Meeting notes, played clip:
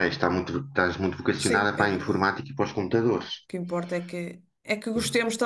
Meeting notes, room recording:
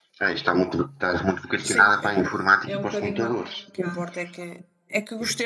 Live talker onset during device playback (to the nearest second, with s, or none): 3 s